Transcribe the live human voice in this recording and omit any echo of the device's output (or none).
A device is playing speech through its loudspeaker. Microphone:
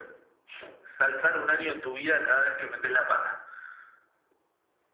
none